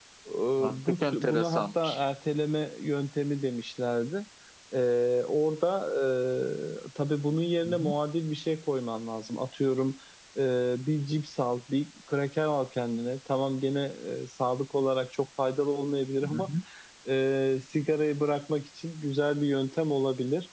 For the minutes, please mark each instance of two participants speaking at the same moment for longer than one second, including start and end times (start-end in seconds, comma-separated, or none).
0.7-2.0